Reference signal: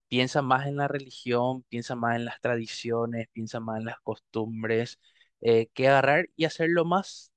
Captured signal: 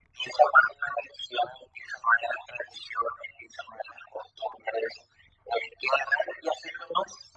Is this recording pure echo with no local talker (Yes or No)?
Yes